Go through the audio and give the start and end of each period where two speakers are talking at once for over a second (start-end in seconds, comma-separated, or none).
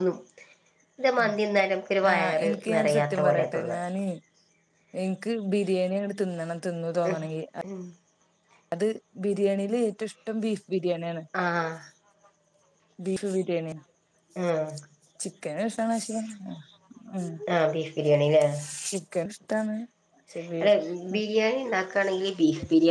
2.1-3.7